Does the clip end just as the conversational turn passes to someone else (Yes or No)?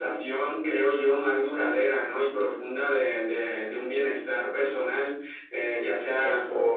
No